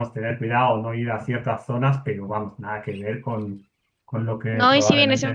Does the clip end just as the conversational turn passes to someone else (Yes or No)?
Yes